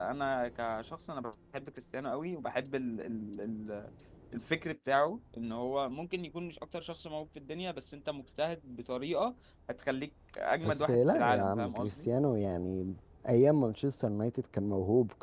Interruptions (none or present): present